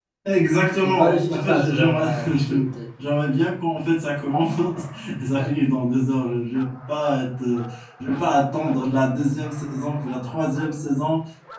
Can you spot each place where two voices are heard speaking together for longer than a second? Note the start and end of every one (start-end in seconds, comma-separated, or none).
0.8-2.6